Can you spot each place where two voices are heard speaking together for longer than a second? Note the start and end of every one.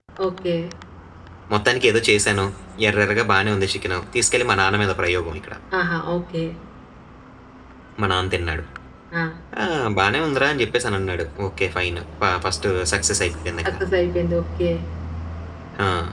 none

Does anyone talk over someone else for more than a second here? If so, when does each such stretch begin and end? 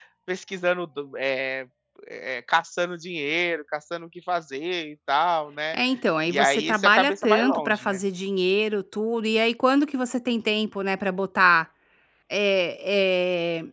6.3-8.0

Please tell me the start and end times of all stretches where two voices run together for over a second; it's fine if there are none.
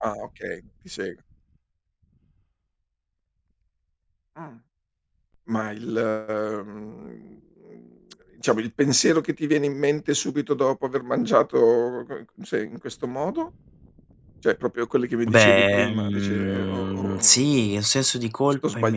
15.3-17.4

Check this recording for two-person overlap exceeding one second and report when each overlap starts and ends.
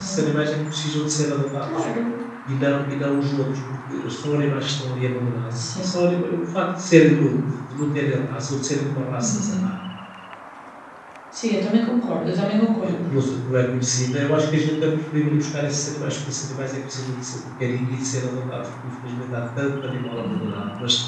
none

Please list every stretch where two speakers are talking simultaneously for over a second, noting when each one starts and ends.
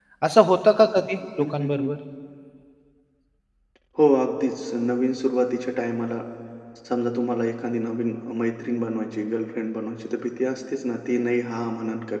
none

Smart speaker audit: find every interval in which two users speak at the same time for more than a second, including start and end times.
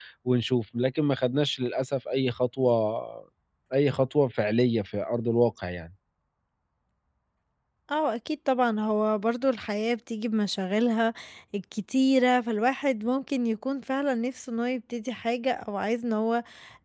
none

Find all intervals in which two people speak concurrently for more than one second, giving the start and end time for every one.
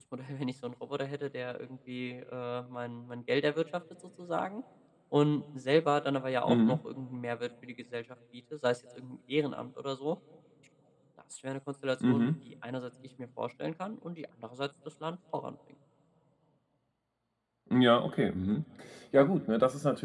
none

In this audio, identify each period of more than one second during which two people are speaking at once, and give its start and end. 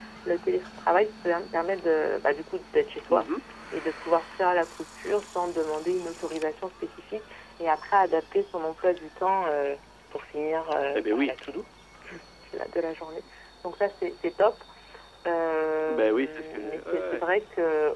15.9-17.2

